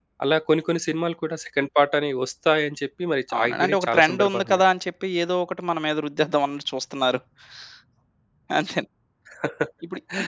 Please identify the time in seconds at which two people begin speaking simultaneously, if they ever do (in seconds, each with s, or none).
3.3 s